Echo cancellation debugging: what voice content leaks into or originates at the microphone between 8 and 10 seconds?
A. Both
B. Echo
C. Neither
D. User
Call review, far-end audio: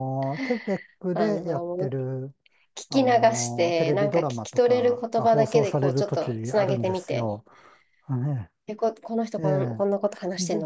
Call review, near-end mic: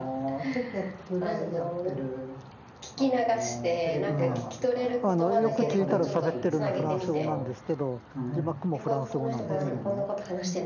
A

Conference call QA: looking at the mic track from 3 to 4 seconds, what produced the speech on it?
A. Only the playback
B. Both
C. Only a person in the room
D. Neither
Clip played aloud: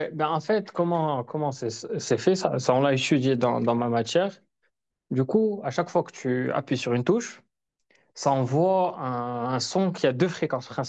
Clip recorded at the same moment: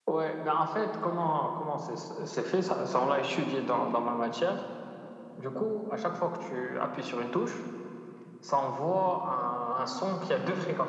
A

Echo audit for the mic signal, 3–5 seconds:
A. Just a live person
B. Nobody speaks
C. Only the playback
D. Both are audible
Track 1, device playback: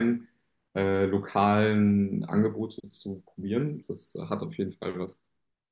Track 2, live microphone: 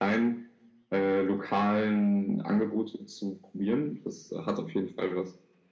C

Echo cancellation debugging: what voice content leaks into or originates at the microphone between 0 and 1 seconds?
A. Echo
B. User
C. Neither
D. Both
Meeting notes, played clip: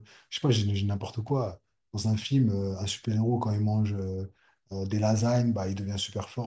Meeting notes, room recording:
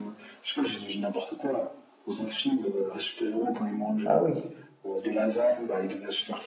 A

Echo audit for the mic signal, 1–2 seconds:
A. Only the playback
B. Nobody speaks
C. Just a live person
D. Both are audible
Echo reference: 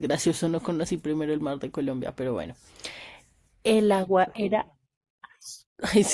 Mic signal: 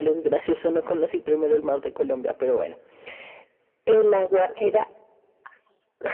A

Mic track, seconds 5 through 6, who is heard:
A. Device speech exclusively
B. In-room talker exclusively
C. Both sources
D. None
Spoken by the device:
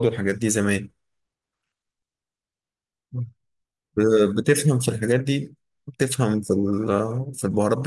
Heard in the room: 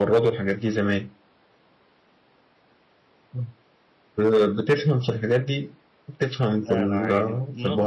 A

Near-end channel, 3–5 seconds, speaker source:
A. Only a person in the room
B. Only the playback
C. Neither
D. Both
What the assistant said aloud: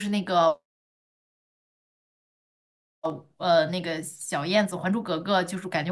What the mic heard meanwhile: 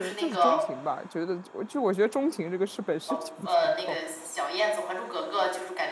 D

